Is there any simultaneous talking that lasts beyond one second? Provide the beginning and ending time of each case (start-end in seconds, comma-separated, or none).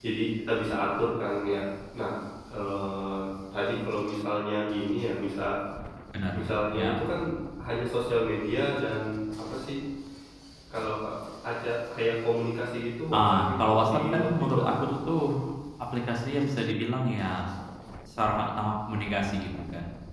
13.1-14.9